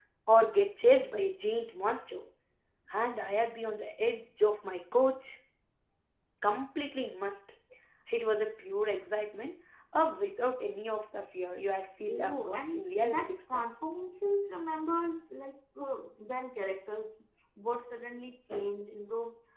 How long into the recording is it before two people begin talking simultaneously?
12.1 s

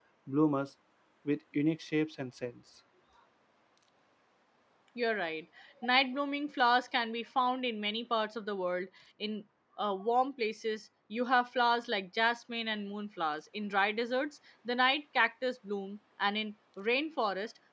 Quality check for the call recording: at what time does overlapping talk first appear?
none

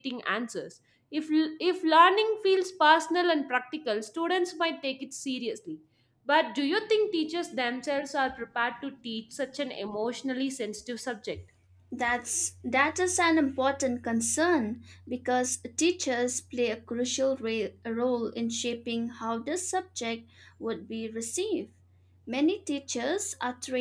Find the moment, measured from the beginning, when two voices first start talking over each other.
none

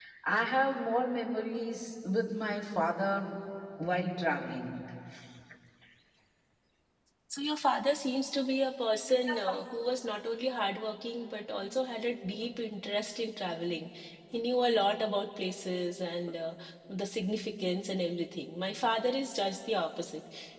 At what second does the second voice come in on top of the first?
none

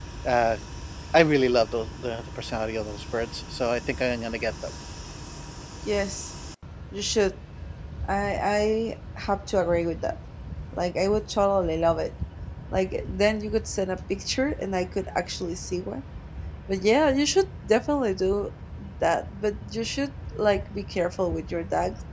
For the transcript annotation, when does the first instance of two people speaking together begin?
none

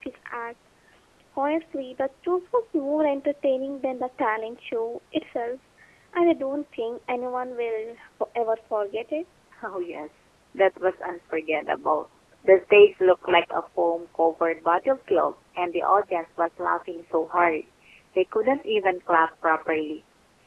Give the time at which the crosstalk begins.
none

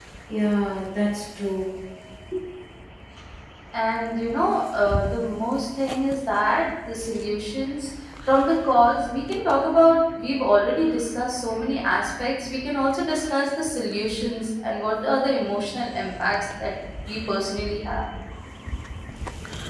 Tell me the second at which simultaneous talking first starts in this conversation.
none

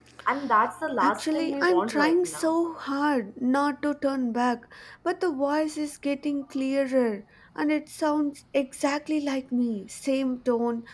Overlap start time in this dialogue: 1.0 s

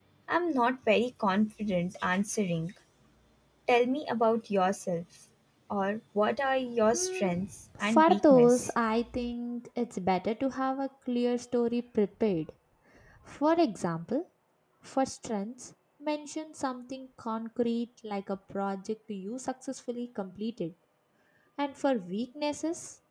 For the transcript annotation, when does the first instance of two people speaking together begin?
6.8 s

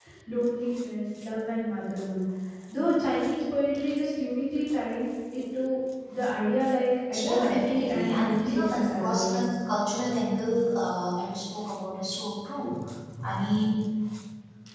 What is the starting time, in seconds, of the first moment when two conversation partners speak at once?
7.1 s

